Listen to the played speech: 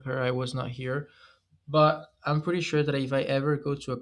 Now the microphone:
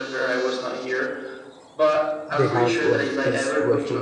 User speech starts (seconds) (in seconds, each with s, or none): 2.3 s